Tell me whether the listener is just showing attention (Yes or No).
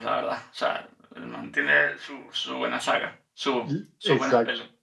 No